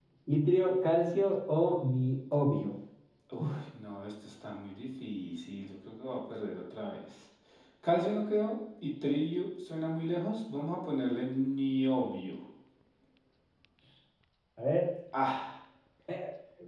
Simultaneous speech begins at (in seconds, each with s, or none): none